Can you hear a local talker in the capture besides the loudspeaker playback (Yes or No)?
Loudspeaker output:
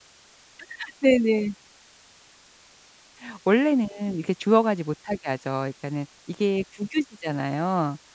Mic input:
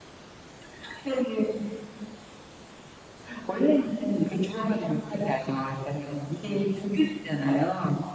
No